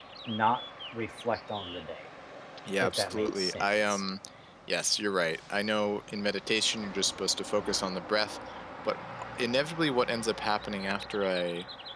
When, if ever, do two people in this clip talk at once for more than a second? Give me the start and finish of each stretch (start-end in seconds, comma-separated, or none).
2.8-4.0